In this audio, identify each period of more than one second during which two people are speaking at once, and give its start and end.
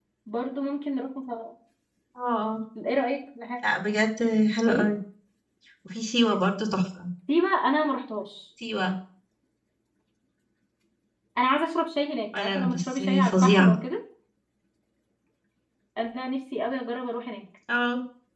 12.4-13.7

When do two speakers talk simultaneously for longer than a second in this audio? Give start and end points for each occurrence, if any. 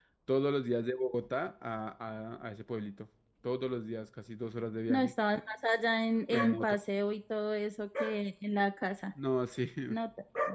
none

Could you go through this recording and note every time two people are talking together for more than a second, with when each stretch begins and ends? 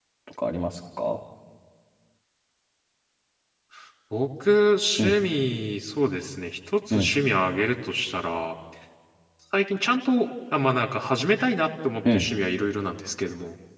none

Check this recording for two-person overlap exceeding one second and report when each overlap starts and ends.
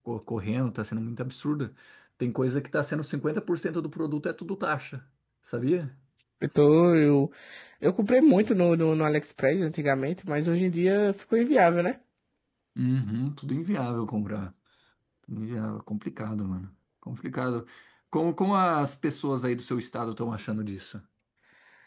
none

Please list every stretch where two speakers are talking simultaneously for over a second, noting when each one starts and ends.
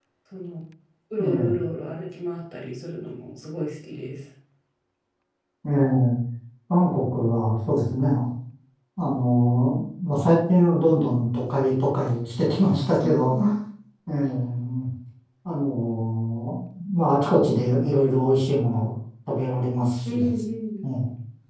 none

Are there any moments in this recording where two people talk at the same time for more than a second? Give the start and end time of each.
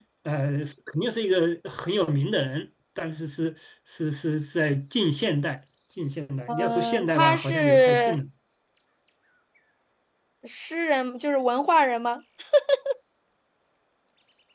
6.5-8.2

